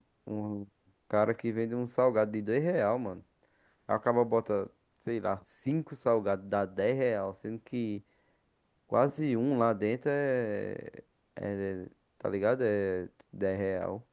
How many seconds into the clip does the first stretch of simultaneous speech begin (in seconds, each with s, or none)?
none